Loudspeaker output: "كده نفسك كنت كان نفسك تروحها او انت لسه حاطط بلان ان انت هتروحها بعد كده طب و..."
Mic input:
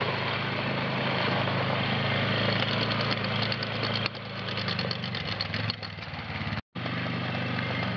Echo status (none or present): none